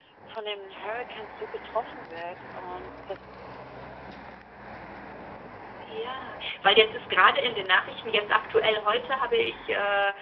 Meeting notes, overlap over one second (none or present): none